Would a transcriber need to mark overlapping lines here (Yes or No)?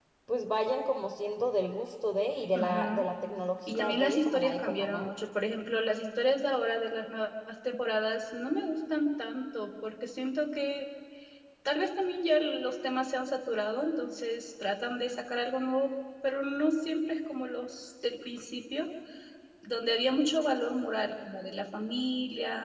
Yes